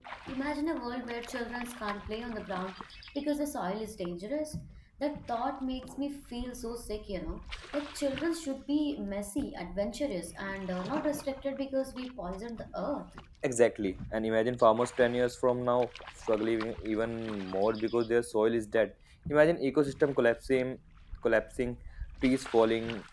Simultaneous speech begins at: none

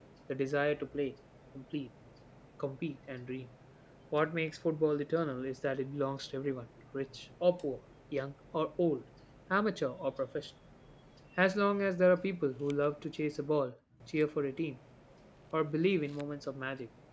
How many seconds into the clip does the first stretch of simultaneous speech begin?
none

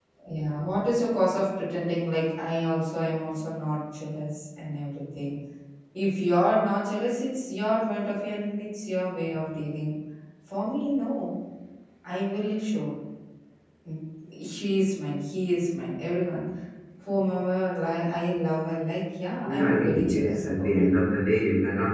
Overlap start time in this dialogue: 19.5 s

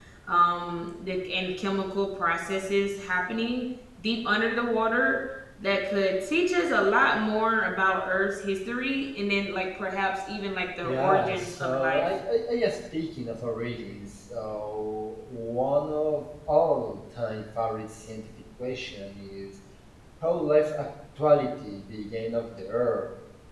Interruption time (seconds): 10.8 s

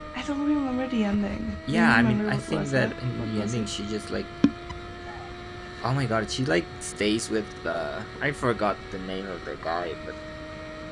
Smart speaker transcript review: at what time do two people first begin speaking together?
1.7 s

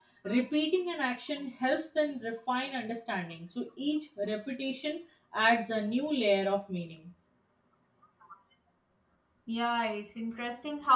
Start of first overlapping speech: none

